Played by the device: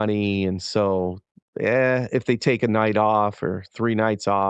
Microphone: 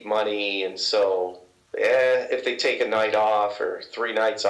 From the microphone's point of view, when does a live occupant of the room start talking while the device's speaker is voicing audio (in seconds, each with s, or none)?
none